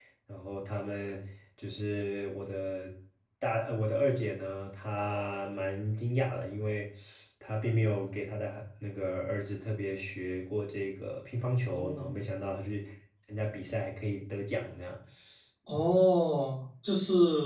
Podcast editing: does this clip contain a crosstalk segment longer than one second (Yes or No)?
No